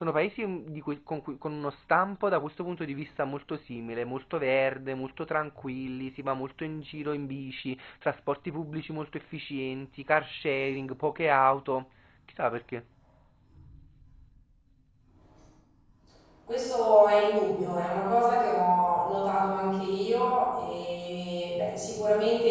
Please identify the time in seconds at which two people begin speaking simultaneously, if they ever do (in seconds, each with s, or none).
none